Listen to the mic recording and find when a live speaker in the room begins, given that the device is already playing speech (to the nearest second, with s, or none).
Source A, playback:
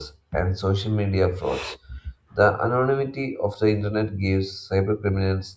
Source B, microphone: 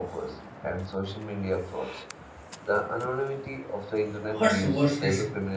4 s